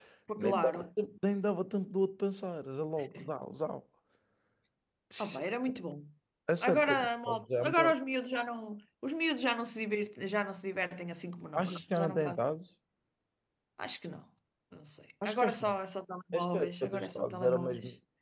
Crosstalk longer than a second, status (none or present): present